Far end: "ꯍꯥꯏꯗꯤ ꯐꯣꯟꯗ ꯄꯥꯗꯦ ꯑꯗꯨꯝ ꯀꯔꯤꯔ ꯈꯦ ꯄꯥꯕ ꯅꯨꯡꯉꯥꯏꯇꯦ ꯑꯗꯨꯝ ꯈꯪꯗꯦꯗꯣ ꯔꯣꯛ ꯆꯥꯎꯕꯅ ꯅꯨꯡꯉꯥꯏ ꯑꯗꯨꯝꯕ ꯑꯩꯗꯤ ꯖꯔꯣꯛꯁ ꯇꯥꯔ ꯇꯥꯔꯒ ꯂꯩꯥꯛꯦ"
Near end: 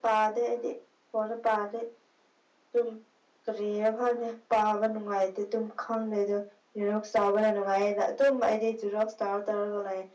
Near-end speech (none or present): none